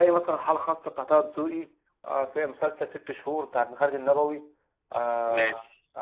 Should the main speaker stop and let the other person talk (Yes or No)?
No